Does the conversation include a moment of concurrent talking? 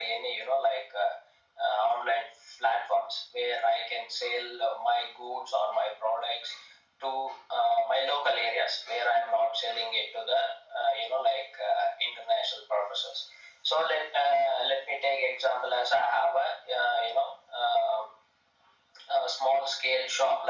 No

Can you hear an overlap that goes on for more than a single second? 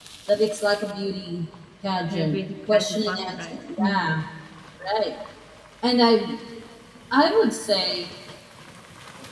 Yes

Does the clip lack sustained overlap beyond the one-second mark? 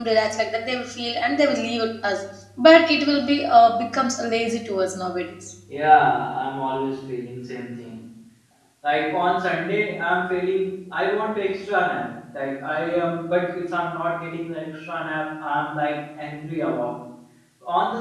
Yes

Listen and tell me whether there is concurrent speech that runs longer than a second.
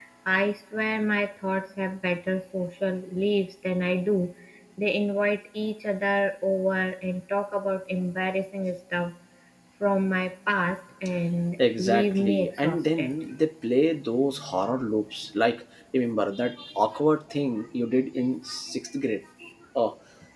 Yes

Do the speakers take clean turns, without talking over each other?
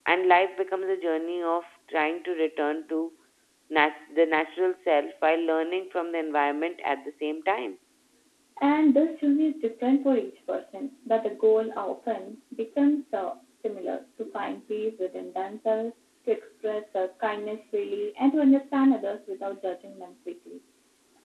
Yes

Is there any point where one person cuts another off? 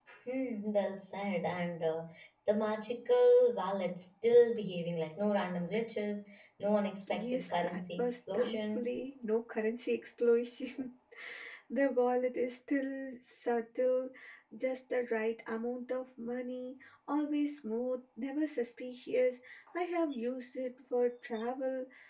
Yes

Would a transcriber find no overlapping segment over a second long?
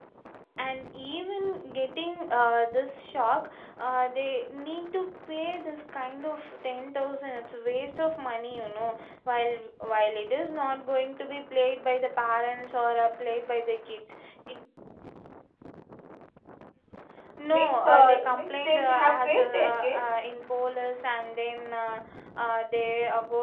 No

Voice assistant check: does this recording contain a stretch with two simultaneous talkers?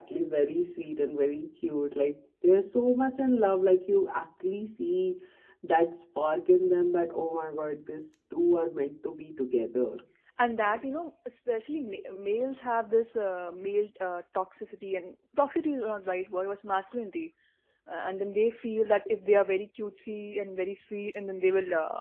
No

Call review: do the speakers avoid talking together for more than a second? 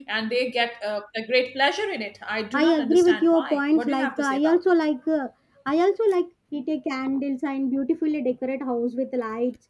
No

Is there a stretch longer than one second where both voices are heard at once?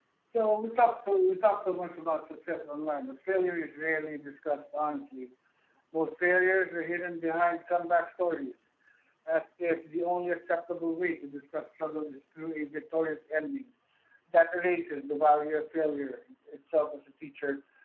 No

